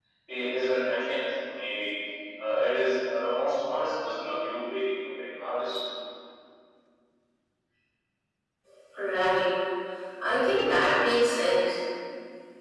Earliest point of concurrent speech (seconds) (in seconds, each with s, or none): none